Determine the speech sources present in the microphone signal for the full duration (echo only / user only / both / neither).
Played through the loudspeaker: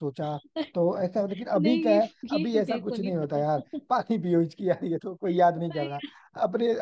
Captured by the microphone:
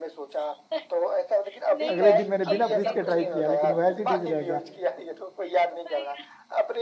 both